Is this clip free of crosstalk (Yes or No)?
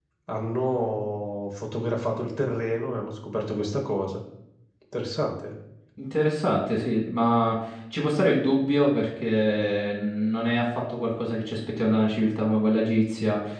Yes